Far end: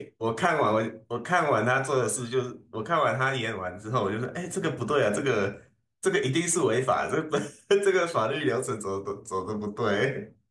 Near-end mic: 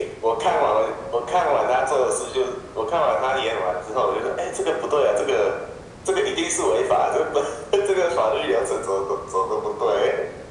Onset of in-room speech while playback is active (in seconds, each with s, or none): none